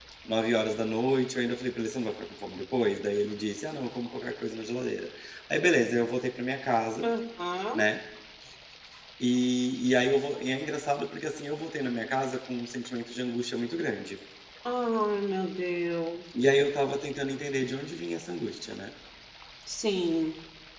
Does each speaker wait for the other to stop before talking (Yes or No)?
Yes